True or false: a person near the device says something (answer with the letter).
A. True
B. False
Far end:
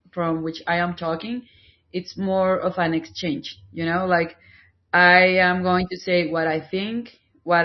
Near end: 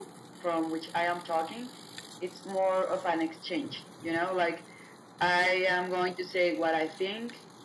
B